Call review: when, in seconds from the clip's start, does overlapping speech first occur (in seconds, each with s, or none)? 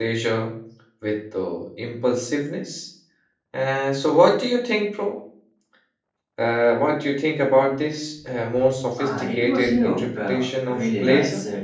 9.0 s